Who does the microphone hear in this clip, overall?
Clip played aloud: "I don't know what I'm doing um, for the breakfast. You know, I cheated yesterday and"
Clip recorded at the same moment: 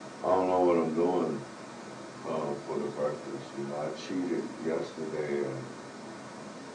echo only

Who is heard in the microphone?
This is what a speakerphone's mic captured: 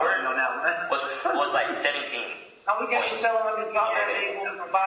echo only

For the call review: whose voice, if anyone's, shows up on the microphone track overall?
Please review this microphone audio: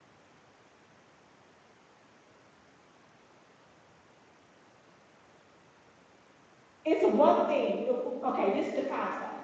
user only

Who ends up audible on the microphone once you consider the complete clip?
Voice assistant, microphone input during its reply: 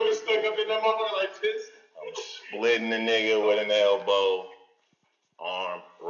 echo only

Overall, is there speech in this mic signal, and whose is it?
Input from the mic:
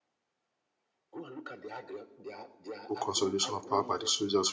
both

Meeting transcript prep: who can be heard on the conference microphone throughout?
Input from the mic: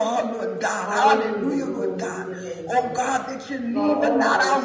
both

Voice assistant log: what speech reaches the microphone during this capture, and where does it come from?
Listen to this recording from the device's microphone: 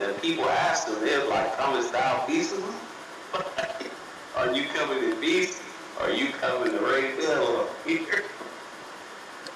echo only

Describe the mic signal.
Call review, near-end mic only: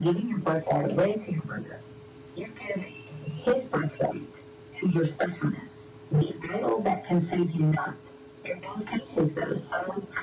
echo only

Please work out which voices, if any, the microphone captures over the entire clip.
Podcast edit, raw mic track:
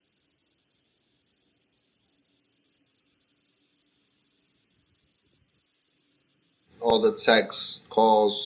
user only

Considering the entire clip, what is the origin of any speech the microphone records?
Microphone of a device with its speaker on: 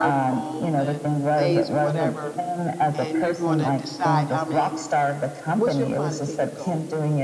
both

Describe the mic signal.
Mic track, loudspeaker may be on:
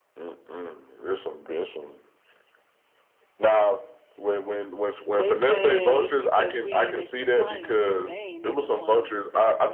both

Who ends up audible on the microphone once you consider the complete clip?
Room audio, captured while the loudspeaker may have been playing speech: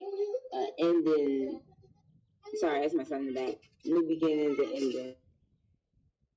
echo only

